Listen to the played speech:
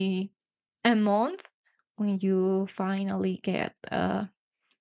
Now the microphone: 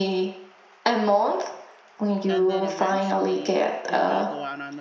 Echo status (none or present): present